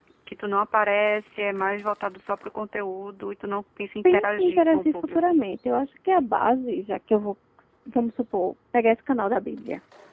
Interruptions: present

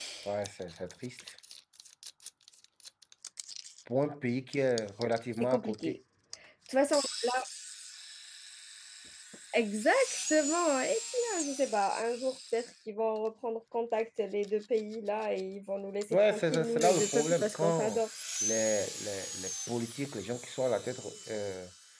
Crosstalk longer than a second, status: present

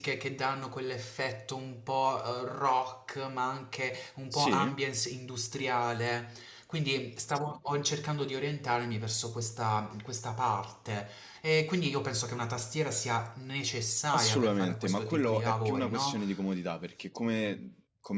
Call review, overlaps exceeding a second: present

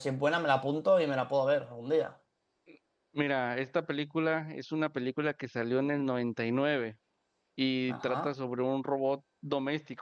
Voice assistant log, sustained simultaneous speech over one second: none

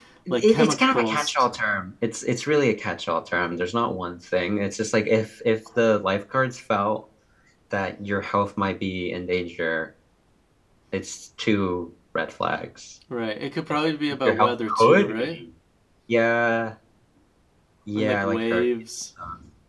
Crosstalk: present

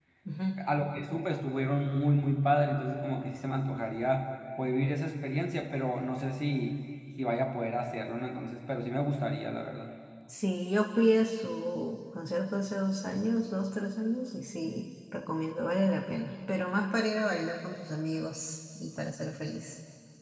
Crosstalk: none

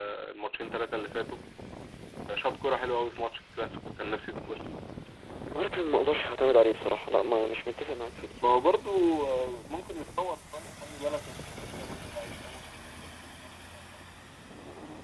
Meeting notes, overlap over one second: none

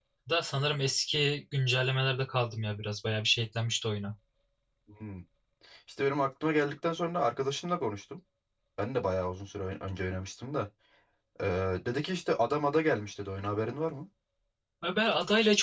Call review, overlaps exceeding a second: none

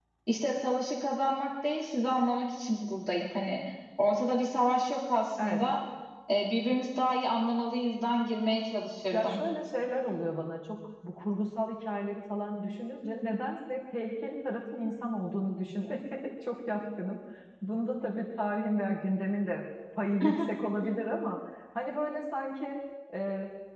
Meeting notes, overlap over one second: none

